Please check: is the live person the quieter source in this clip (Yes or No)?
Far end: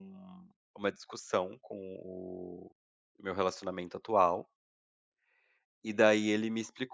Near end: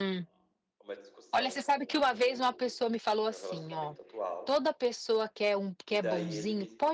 No